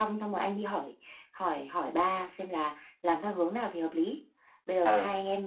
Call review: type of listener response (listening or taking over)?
listening